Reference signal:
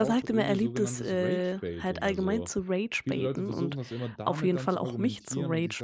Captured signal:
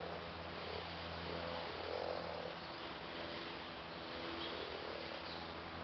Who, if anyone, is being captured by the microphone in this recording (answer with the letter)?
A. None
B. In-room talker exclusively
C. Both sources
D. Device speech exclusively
A